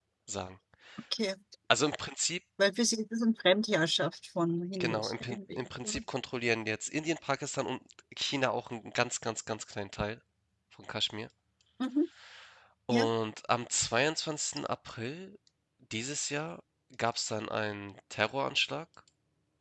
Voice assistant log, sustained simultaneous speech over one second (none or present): present